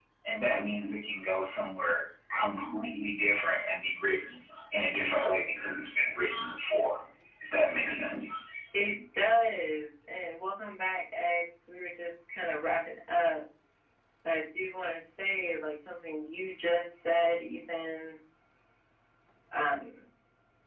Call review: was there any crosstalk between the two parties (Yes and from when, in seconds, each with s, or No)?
No